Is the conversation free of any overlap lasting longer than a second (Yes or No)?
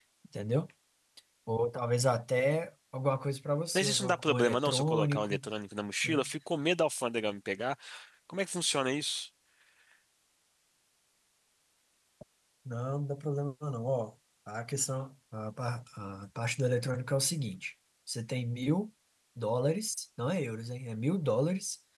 No